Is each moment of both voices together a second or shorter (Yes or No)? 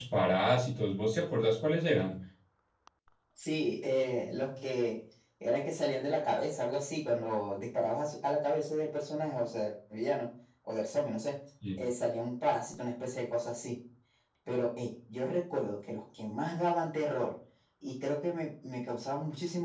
Yes